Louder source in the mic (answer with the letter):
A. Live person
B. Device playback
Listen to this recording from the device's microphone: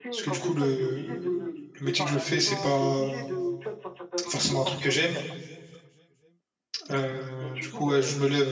A